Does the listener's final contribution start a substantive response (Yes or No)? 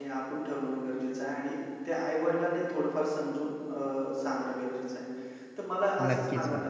No